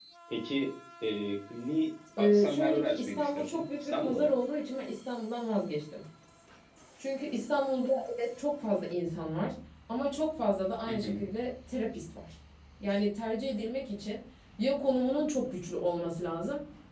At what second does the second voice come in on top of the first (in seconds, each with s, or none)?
2.2 s